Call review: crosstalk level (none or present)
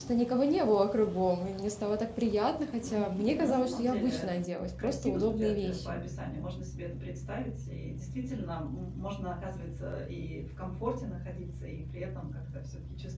present